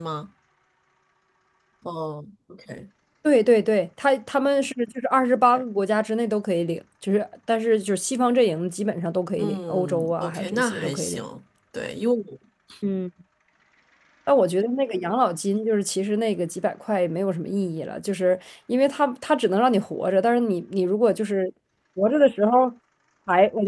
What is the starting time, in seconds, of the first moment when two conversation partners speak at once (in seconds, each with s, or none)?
9.4 s